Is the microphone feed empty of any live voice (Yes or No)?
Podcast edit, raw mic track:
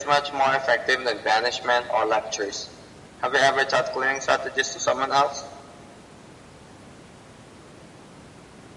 Yes